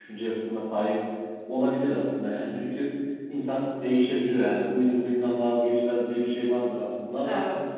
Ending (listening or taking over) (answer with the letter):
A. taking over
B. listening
B